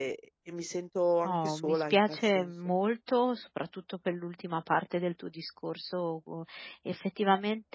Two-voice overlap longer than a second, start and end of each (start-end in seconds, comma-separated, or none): 1.2-2.5